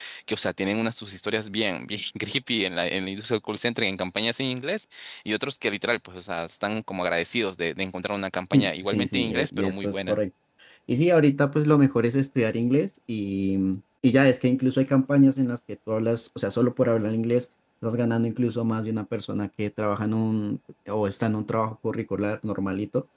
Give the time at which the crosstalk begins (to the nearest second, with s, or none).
9 s